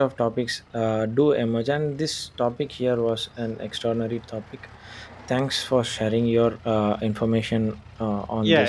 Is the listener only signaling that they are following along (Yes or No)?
No